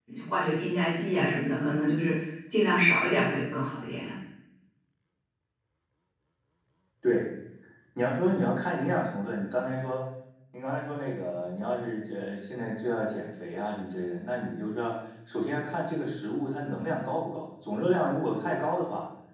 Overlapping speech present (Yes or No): No